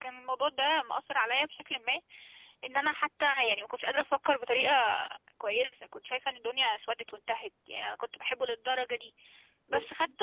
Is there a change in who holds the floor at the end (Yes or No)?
No